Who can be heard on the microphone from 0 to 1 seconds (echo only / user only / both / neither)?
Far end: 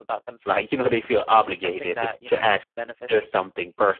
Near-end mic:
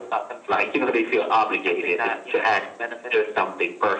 echo only